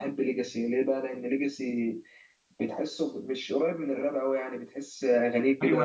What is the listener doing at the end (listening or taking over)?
taking over